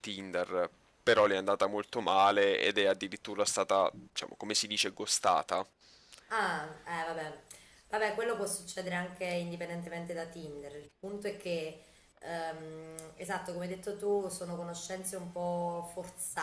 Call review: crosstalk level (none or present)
none